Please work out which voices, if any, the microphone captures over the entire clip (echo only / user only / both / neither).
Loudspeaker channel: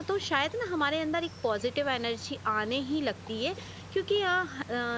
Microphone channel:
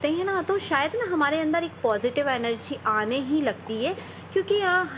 echo only